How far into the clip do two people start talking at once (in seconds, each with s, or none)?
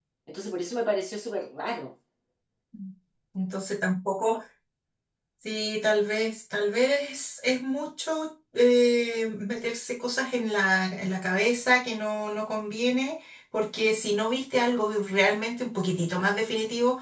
none